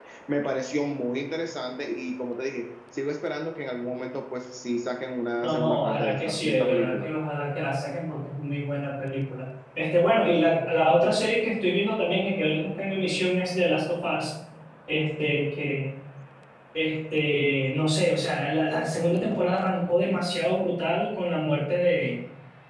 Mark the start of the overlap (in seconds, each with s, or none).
5.4 s